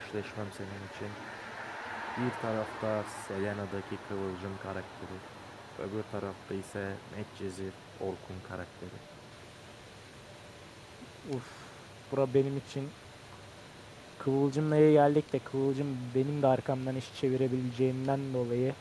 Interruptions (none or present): none